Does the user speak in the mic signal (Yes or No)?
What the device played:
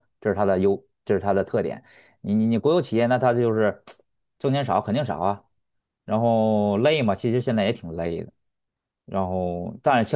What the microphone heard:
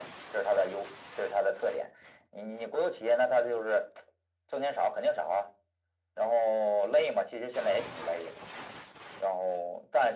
No